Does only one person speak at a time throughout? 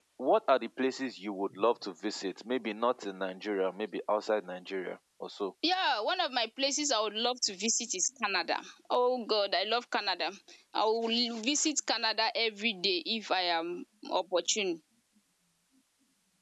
Yes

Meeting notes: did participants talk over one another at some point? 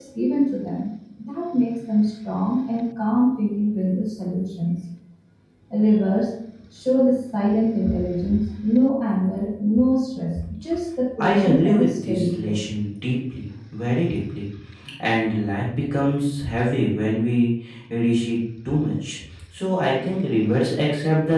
Yes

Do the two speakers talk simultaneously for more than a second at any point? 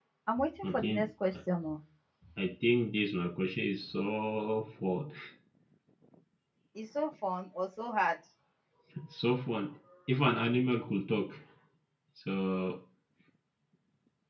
No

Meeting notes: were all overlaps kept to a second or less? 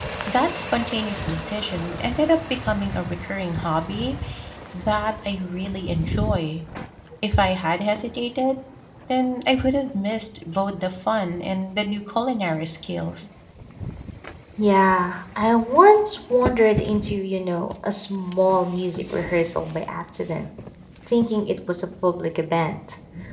Yes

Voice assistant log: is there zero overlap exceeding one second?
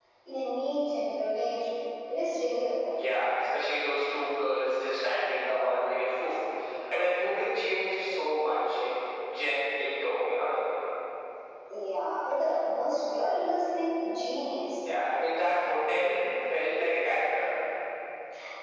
Yes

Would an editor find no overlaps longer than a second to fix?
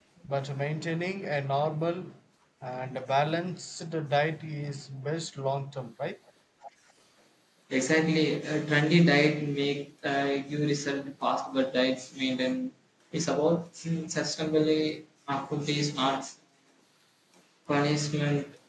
Yes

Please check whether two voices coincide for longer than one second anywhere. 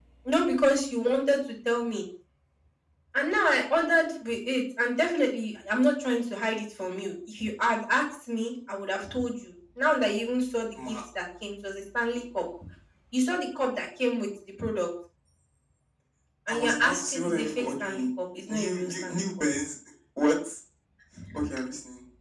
Yes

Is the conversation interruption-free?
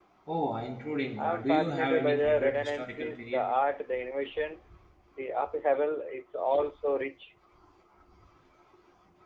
No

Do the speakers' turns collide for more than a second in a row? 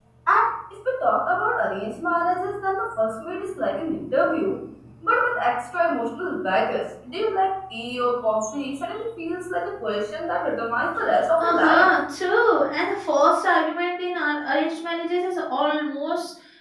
No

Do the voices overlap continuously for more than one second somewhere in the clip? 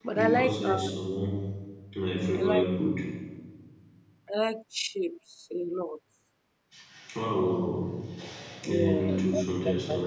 Yes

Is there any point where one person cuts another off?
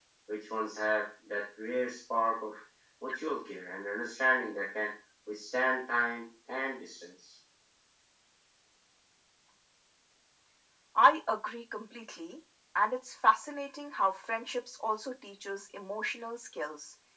No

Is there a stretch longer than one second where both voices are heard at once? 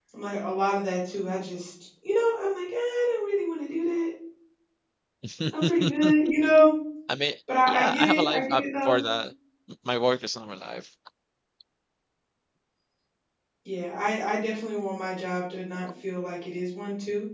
Yes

